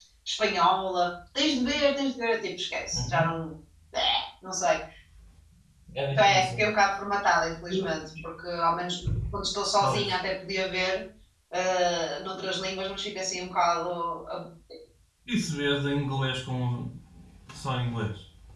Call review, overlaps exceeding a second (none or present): none